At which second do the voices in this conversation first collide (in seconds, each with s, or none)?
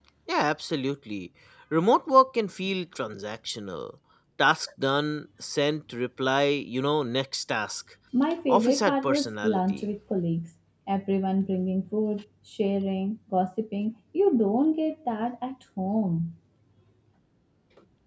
8.5 s